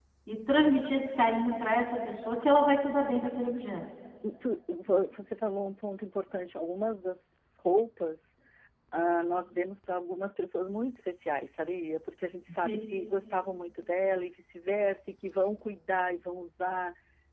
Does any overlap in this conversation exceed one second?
No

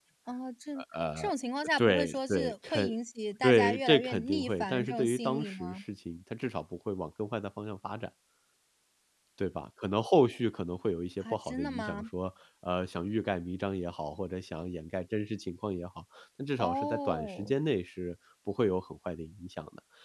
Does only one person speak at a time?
No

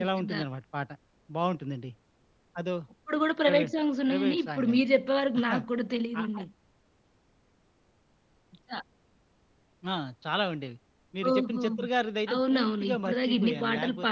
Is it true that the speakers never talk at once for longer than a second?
No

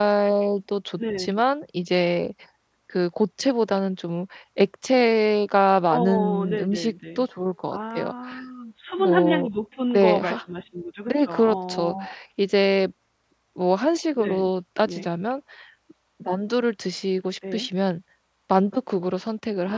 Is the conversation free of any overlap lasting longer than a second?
No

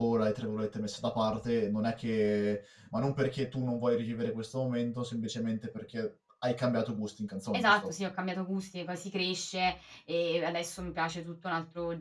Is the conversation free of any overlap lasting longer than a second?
Yes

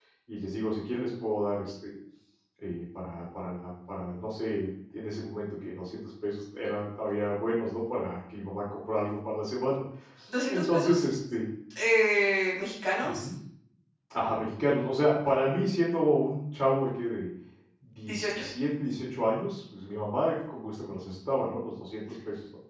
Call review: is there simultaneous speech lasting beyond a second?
No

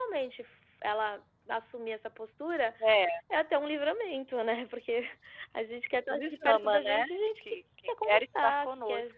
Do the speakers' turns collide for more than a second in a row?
Yes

